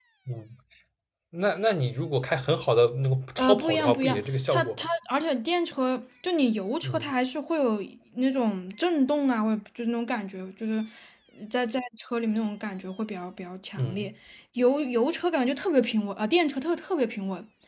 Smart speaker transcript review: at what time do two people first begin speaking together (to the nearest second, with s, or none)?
3 s